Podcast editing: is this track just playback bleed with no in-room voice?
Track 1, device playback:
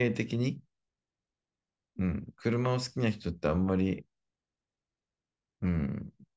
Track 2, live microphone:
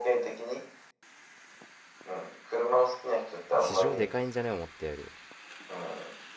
No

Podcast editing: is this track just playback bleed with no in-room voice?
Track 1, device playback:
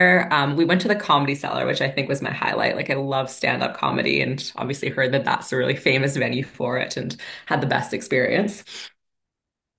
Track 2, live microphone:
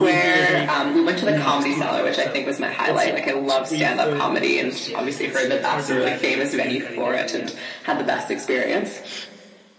No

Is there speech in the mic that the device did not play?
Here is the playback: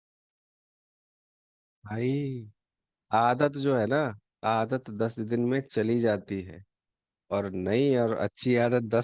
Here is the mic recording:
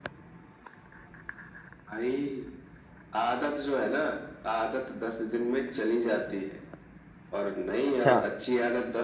Yes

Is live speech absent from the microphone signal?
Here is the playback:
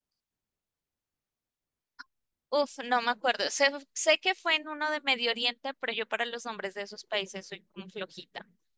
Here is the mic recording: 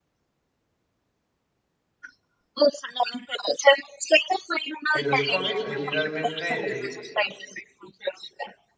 No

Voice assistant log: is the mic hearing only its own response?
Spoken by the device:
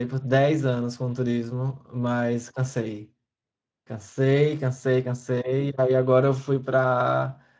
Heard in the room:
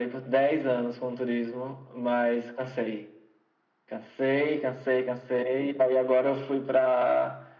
Yes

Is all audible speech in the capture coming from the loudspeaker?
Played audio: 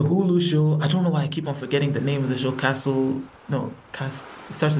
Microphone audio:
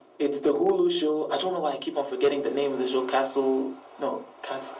Yes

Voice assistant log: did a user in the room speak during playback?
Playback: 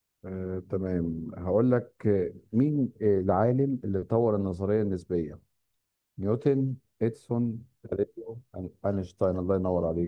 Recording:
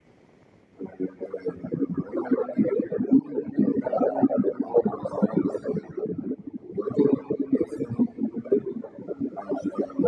No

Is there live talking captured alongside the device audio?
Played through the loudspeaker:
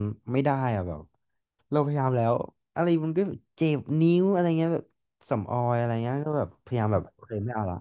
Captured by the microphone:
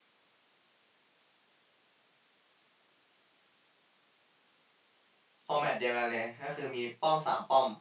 Yes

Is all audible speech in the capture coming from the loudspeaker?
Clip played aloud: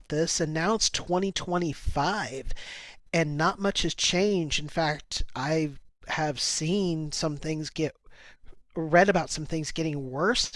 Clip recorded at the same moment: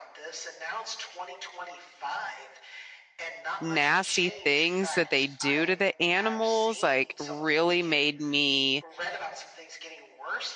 No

